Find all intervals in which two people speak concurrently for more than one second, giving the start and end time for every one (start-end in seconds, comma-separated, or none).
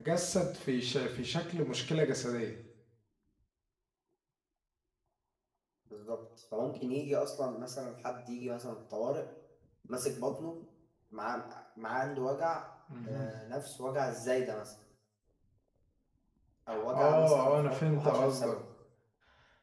16.7-18.6